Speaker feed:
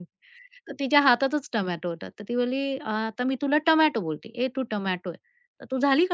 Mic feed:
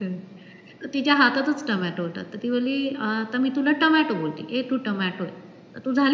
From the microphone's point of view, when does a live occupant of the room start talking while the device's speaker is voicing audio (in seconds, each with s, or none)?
none